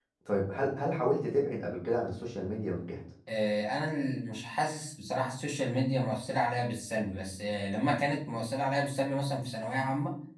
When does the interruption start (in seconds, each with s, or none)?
none